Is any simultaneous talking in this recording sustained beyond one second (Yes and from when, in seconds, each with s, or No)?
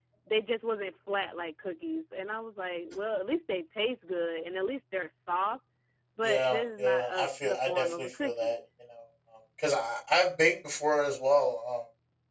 Yes, from 6.2 s